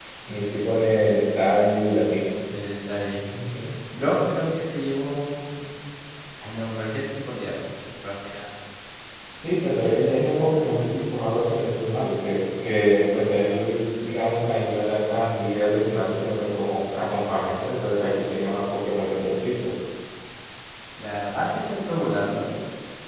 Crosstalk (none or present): none